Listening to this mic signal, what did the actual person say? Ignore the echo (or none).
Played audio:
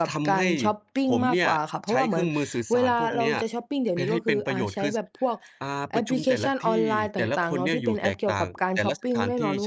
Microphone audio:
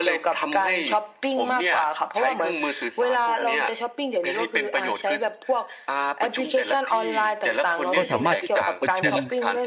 ก็สามารถที่จะประชุม